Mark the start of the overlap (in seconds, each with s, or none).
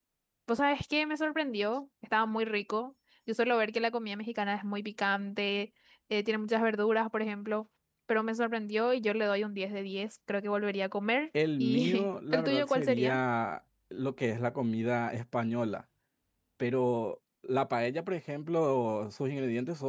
11.6 s